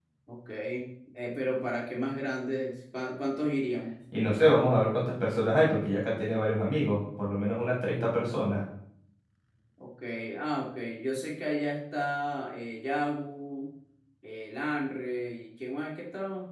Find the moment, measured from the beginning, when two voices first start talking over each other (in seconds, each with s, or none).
none